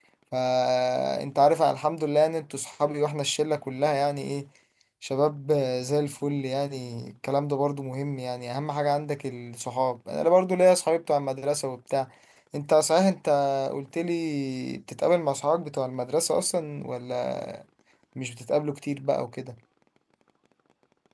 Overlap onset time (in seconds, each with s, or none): none